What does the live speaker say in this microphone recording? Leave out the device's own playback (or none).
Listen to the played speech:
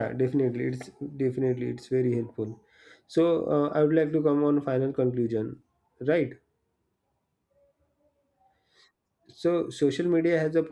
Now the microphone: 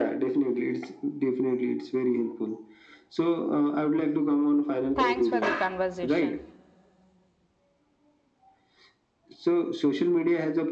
thanks for the conversation